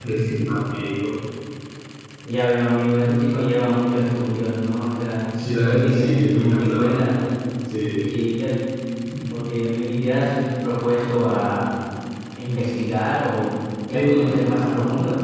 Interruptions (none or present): present